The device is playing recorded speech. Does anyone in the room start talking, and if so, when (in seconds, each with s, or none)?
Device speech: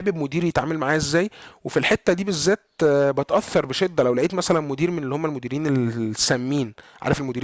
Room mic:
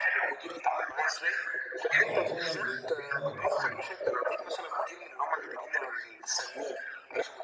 1.9 s